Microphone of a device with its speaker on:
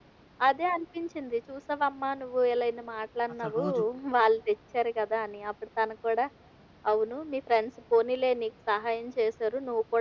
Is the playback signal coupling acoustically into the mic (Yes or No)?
Yes